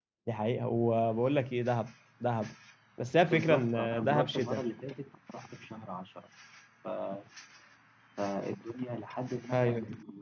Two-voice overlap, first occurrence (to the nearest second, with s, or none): 3 s